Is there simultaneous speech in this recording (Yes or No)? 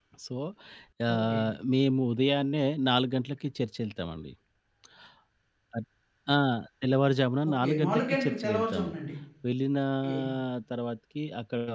Yes